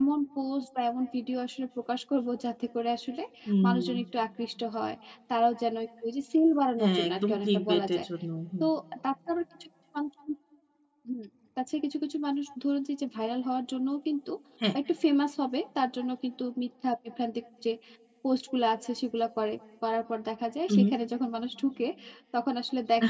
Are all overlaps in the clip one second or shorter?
No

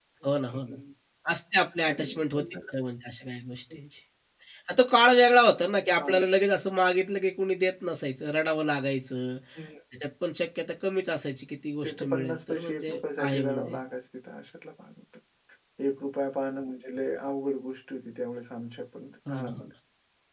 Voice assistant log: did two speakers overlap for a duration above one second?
Yes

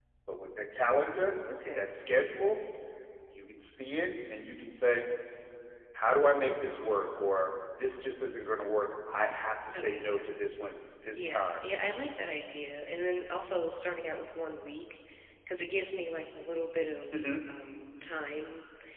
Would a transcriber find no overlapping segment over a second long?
Yes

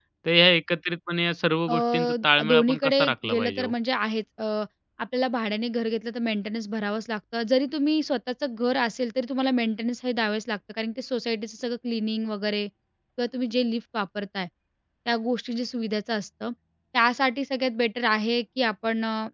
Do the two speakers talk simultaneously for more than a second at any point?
Yes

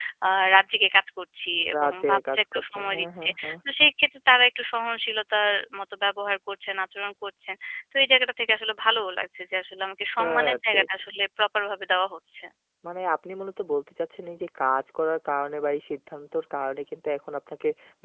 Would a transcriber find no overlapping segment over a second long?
No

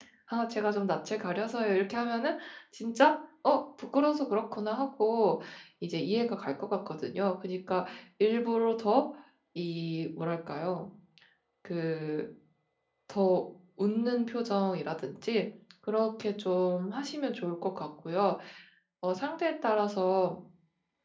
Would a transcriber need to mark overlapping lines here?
No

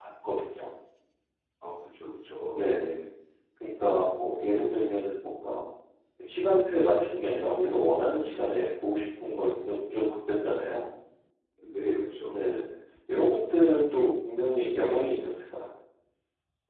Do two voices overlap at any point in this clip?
No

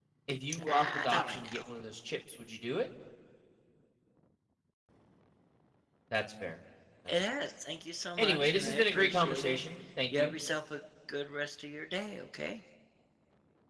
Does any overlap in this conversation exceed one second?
Yes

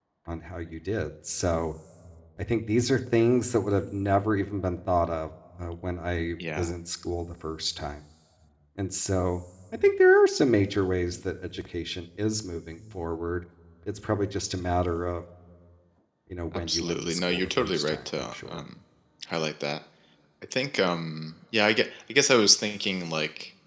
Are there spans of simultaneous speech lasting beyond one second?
Yes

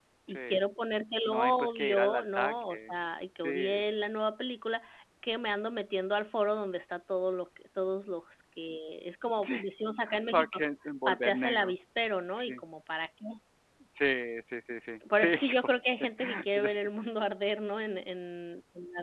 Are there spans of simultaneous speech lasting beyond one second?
Yes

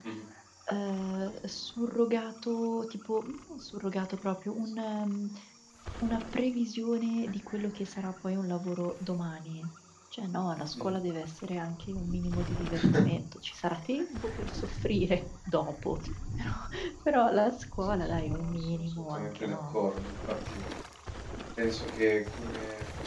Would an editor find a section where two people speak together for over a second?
Yes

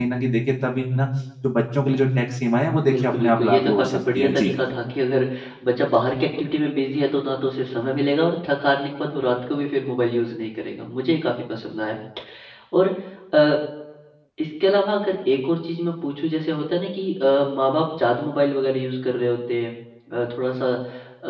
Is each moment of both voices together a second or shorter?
No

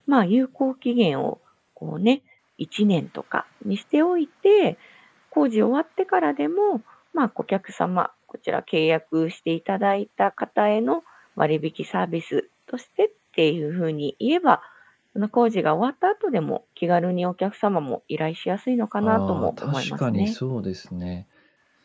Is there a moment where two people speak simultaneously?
Yes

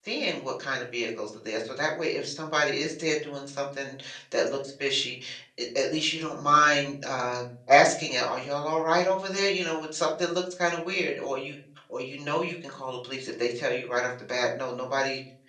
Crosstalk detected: No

